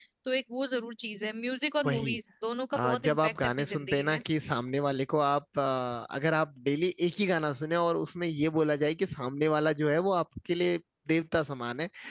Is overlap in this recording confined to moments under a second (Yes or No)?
No